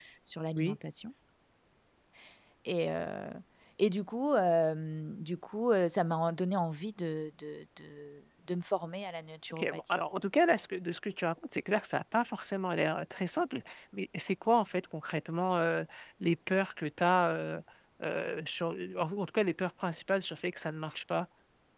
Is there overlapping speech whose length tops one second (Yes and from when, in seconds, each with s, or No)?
No